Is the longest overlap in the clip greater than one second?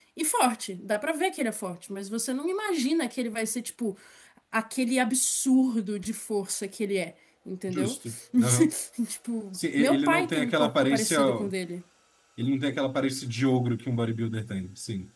Yes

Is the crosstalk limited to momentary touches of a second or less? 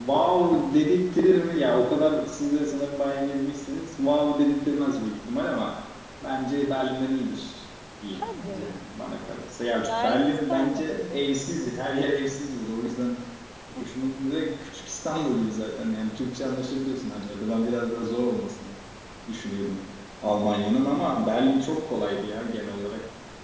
No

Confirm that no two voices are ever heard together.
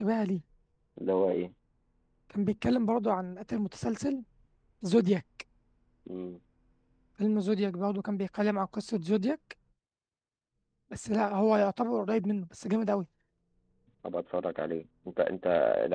Yes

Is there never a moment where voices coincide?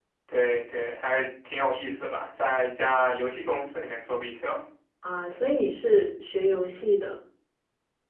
Yes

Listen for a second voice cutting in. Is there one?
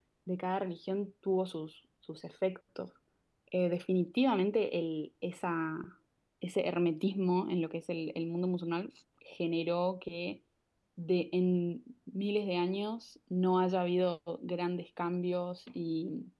No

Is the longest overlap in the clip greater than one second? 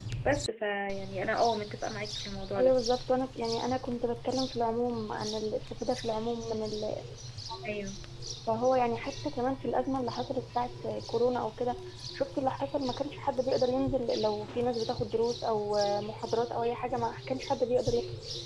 No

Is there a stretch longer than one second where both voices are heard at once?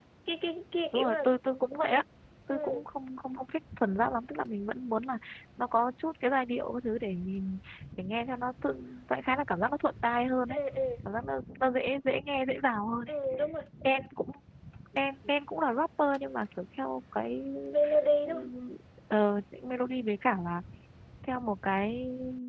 No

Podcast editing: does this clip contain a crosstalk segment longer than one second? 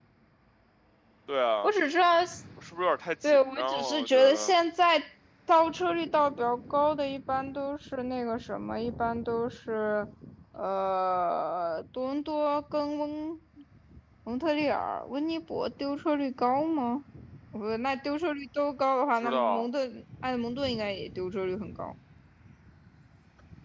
Yes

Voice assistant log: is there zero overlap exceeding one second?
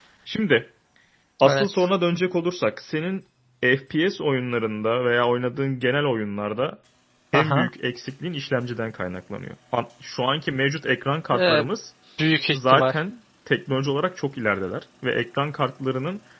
Yes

